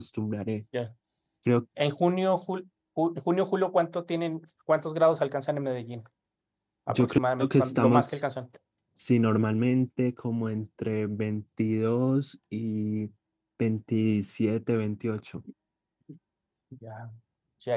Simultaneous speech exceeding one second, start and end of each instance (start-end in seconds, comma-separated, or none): 6.9-8.2